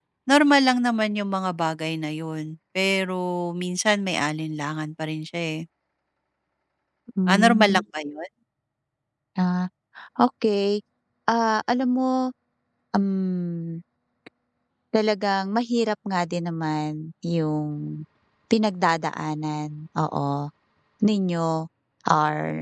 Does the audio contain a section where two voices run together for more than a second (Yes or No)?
No